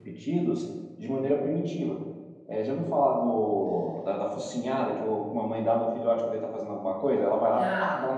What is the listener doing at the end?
listening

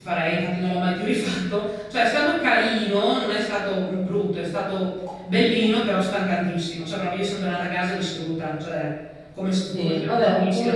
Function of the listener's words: taking over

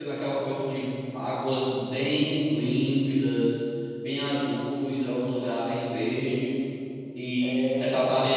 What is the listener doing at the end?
listening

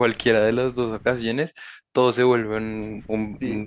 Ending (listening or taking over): taking over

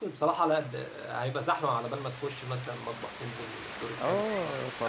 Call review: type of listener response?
taking over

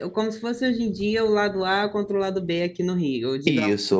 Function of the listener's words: taking over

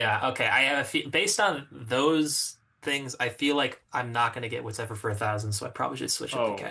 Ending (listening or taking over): taking over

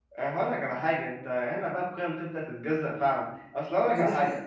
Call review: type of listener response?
taking over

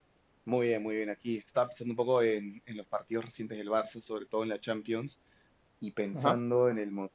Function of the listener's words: listening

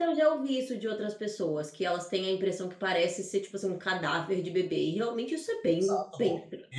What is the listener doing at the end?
taking over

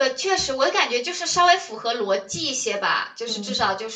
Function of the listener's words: listening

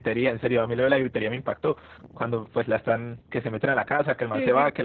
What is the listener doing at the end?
listening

